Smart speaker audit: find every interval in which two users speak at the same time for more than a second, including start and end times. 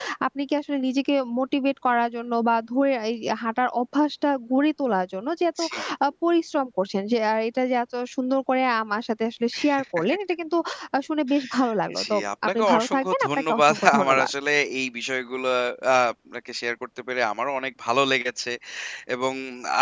12.0-14.3

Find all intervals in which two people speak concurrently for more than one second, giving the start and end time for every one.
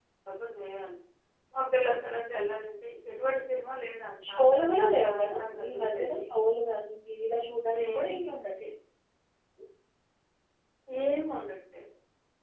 4.3-6.2

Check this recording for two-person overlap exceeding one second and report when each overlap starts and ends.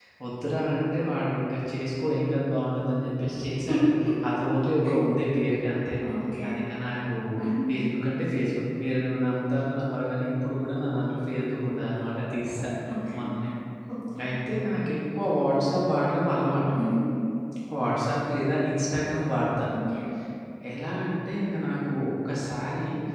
none

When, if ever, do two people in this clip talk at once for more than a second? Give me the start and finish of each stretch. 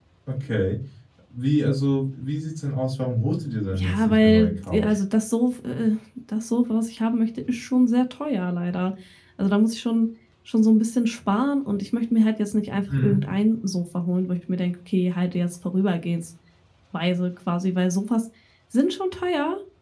3.7-5.0

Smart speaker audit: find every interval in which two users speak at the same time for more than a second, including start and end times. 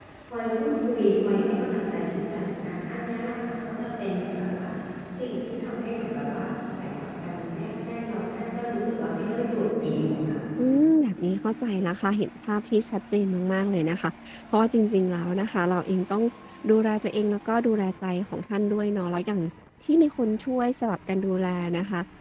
none

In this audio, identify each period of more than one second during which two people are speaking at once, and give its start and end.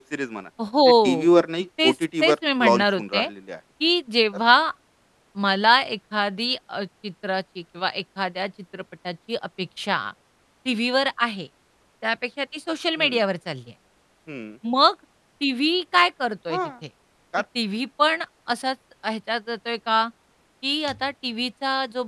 1.8-3.3

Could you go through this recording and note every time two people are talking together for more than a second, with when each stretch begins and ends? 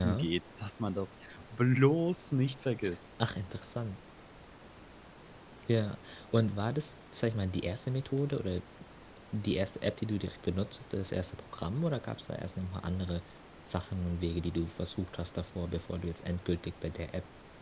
none

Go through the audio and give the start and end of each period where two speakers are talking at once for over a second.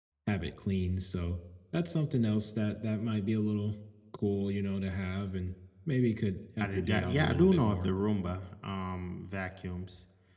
6.6-7.9

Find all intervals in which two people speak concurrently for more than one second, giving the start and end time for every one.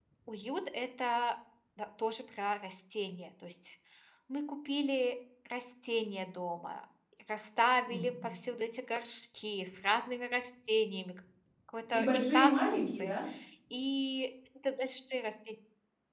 11.9-13.2

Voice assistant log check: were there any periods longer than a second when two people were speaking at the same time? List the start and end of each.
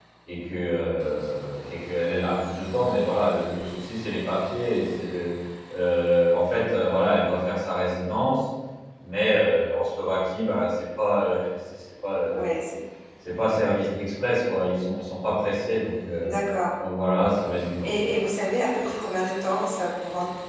none

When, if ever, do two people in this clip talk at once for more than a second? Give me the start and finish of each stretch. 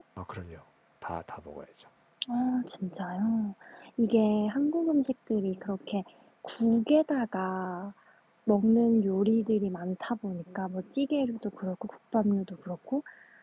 none

